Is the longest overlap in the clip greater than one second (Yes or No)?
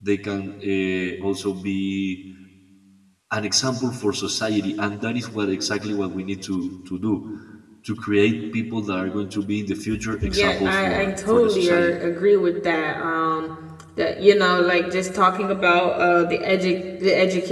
Yes